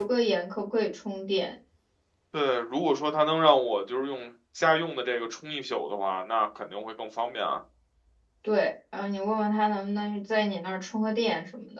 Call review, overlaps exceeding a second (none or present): none